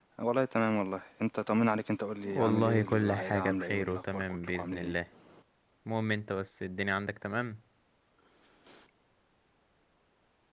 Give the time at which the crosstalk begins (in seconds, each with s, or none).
2.2 s